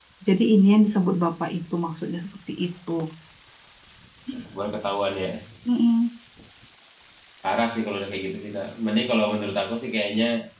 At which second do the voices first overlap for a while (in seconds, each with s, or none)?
none